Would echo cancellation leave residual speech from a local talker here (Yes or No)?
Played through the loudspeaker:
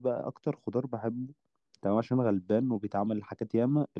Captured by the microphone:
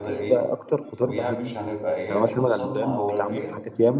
Yes